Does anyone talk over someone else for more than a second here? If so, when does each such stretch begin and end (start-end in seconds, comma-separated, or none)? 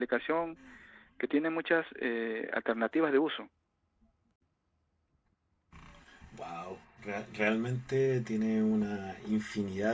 none